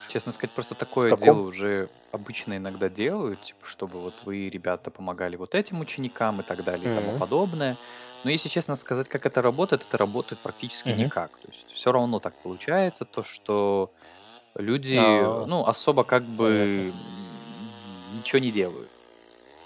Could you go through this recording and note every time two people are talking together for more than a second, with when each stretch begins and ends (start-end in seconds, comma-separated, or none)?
none